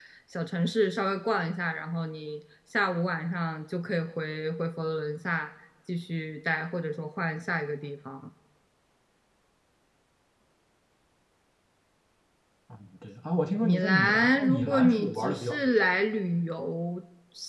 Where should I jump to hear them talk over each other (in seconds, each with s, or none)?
13.6 s